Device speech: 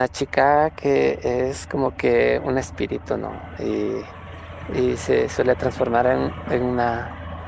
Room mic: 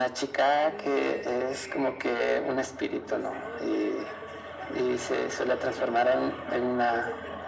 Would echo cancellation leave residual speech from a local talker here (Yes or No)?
Yes